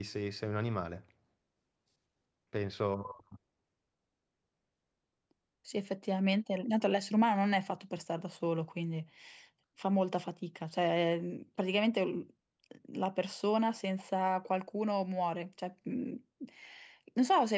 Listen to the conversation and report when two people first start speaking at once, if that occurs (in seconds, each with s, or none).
none